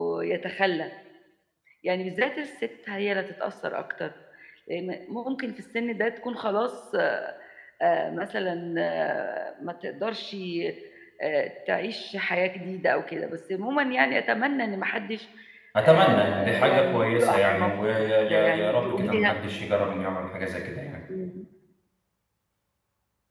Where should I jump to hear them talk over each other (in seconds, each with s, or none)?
15.8 s